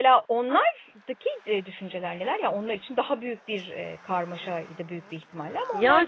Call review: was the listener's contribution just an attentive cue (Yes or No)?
No